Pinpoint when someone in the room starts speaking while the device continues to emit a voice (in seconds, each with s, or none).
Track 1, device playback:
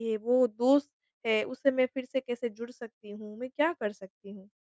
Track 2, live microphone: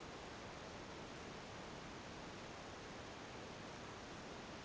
none